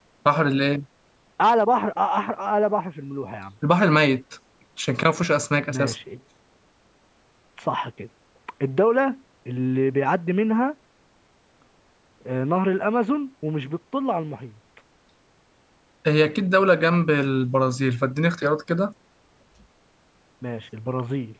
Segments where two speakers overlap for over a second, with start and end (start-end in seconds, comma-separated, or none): none